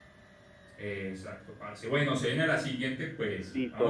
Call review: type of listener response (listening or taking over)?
taking over